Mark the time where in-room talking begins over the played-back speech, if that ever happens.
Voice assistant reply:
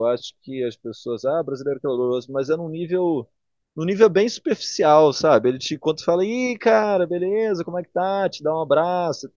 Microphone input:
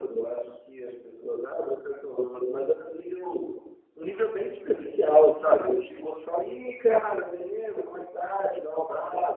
none

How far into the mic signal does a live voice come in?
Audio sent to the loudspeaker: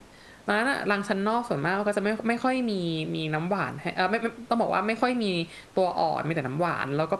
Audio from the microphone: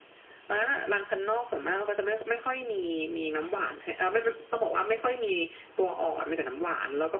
none

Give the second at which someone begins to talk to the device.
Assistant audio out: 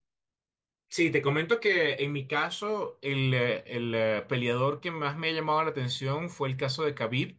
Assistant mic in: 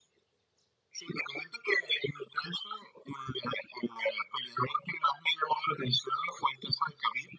none

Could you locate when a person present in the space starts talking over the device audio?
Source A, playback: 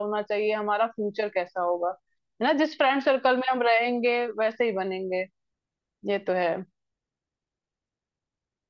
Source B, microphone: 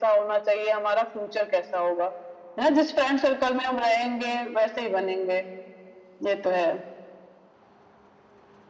none

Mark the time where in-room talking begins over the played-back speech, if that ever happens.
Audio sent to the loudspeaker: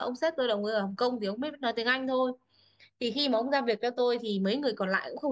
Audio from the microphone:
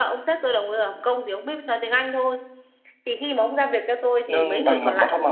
4.3 s

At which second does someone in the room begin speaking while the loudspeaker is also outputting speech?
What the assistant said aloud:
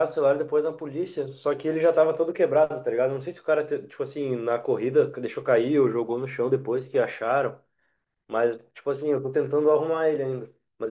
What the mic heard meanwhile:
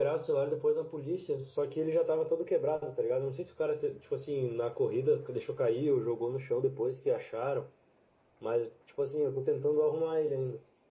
none

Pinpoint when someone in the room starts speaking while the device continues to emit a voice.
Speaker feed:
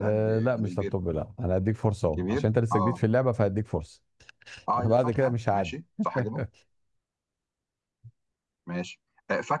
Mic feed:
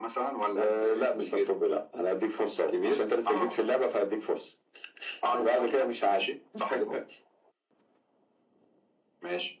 none

